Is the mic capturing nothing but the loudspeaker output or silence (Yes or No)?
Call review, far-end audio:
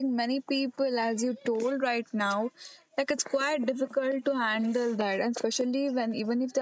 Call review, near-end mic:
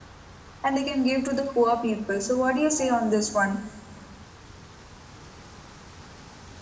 No